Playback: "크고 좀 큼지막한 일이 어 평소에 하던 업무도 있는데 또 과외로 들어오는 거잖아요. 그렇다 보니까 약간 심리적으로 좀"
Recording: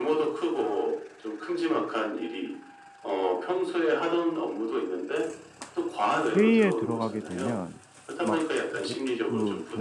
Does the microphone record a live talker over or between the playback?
Yes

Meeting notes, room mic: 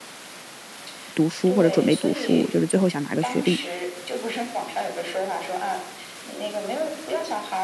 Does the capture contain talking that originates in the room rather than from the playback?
Yes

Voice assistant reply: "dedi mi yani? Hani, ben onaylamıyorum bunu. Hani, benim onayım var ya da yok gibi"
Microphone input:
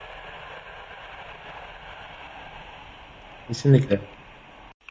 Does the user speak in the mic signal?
Yes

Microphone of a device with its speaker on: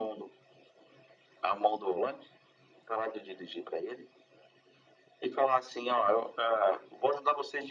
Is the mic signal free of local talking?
Yes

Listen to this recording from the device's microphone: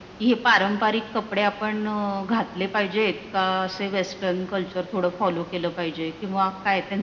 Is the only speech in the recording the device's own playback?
Yes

